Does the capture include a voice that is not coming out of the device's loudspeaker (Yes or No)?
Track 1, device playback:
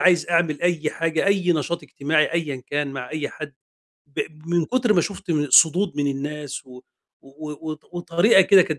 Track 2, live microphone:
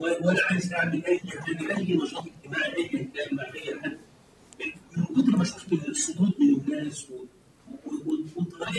No